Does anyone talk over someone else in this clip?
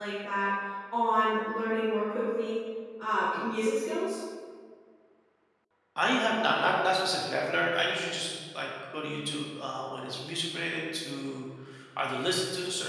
No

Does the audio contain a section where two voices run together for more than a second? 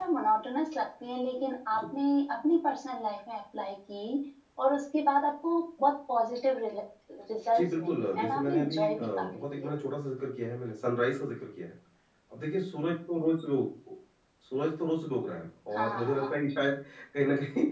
Yes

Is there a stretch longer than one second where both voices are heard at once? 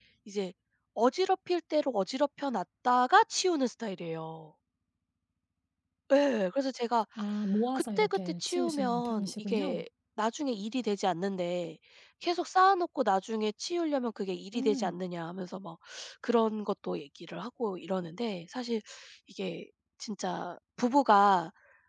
Yes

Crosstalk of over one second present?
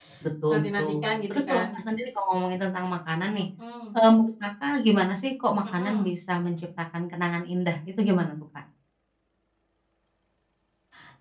Yes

